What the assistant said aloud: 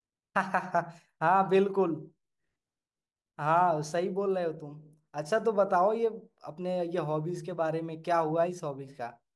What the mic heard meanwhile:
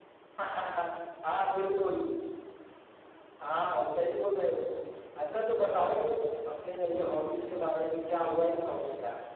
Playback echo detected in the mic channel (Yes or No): Yes